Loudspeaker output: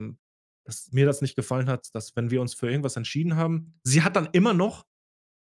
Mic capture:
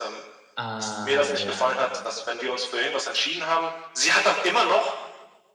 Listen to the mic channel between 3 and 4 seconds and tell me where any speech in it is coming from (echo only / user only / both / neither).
echo only